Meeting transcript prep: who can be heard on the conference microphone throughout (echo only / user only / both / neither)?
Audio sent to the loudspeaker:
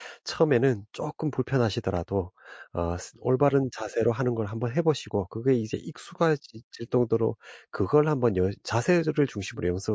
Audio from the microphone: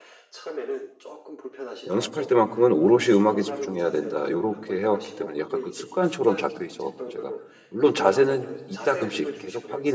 both